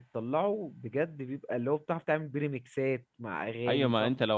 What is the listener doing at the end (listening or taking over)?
taking over